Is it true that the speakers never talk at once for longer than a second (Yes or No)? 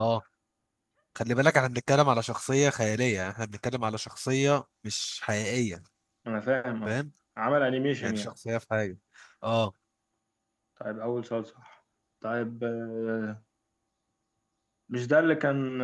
Yes